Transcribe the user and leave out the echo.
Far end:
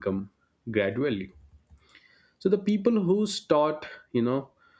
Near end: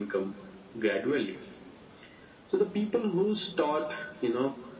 none

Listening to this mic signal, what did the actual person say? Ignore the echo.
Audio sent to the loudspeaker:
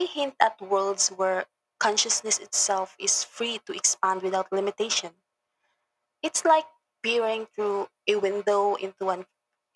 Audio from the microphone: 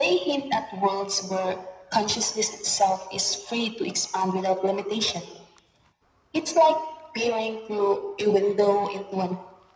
none

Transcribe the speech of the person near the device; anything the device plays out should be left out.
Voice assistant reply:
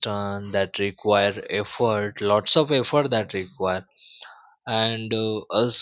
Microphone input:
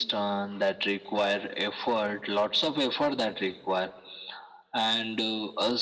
none

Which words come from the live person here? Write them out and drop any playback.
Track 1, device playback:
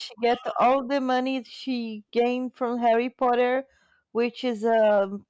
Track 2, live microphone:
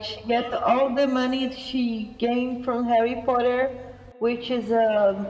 none

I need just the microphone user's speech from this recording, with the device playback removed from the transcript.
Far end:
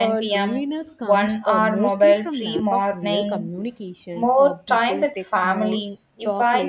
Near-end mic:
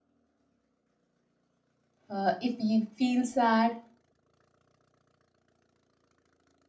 Uh, if we feel sad,

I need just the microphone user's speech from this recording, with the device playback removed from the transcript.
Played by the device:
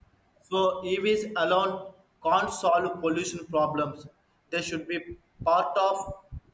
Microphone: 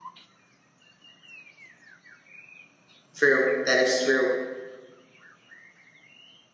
true that is true

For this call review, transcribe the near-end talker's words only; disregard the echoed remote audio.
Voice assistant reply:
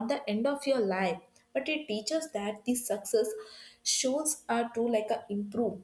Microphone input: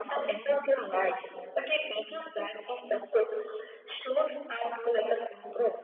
none

